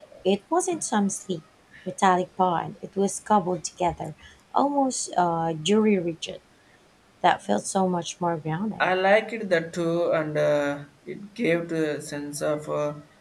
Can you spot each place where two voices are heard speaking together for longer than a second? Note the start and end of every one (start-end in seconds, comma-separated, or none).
none